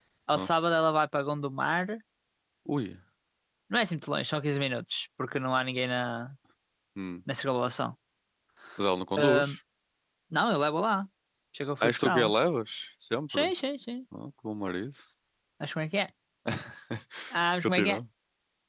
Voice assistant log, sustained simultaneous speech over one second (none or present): none